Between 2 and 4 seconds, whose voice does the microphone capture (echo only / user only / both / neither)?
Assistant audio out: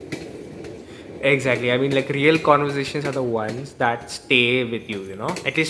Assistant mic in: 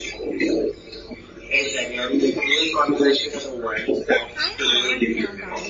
echo only